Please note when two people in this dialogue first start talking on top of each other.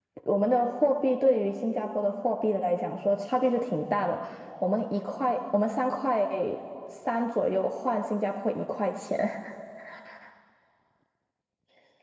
none

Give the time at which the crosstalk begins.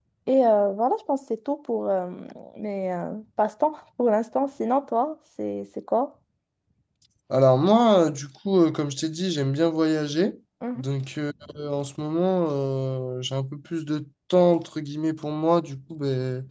none

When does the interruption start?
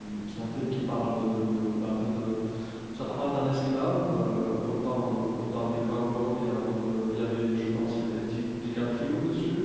none

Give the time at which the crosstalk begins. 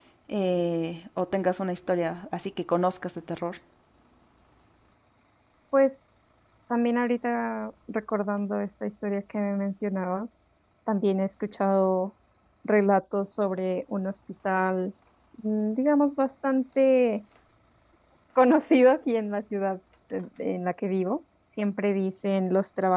none

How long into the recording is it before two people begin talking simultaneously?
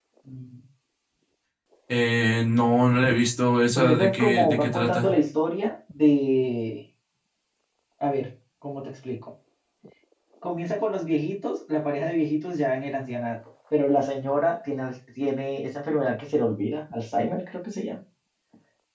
3.8 s

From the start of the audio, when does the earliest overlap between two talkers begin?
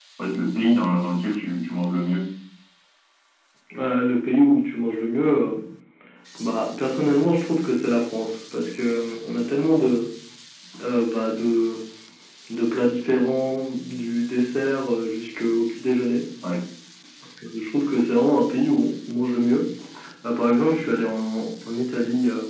none

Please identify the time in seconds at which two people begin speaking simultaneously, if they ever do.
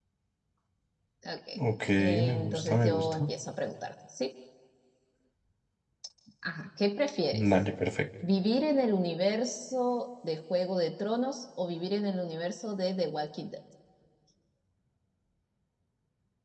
2.0 s

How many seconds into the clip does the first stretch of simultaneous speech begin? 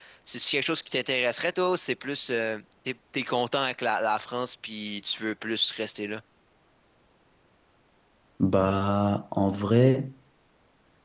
none

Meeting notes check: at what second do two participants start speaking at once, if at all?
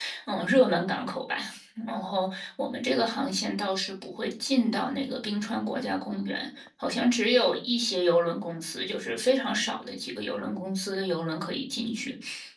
none

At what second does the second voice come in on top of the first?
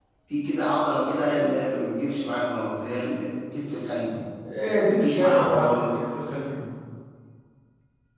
4.8 s

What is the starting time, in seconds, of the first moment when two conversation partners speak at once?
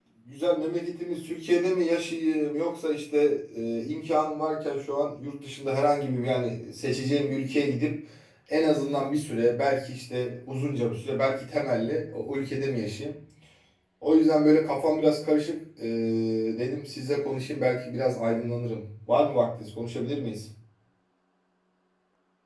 none

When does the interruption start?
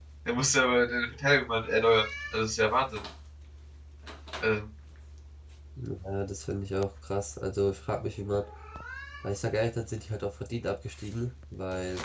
none

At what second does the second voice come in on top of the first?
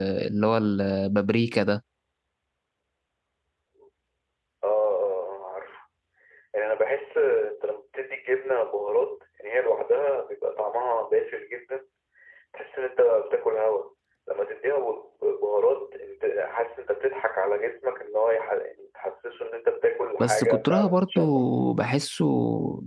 20.2 s

